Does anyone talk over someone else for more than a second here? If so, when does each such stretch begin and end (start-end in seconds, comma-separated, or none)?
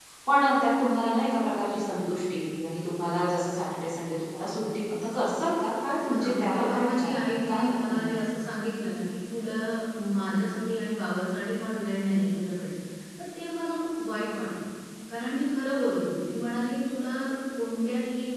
6.0-8.2